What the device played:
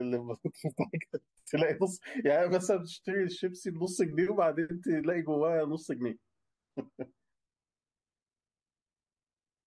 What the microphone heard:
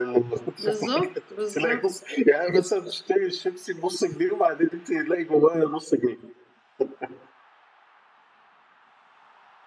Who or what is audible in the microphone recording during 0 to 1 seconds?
both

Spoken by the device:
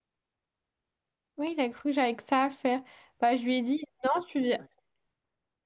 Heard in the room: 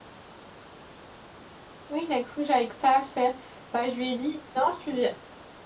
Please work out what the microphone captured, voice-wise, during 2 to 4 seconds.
echo only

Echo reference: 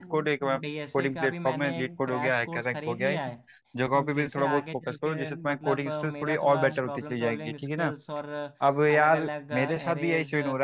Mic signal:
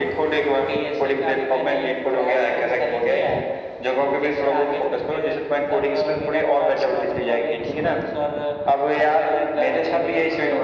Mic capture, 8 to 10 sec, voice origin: echo only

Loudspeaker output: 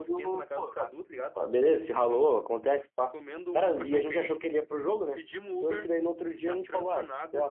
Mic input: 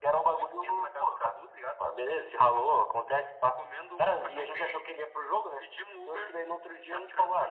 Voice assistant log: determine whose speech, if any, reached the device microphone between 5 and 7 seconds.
echo only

